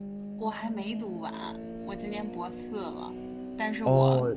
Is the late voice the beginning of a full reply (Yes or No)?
No